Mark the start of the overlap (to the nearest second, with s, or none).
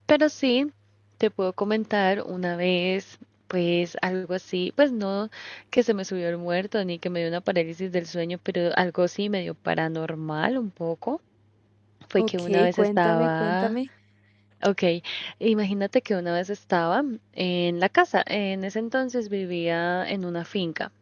12 s